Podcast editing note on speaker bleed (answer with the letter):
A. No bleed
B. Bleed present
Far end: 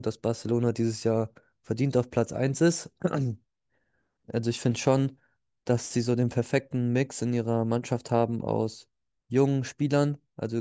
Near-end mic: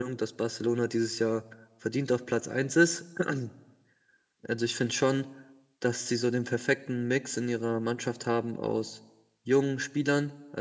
B